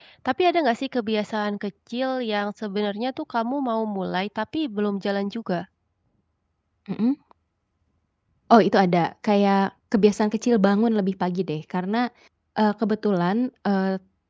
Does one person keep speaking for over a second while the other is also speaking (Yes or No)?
No